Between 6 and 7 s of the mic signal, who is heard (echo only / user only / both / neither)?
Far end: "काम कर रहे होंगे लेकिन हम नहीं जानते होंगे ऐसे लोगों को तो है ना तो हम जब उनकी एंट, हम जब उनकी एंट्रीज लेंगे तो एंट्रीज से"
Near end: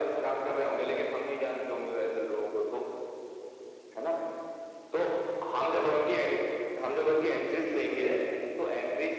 echo only